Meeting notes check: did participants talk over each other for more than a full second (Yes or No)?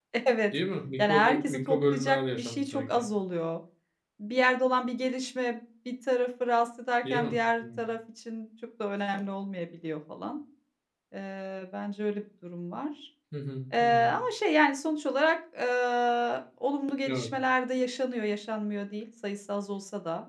Yes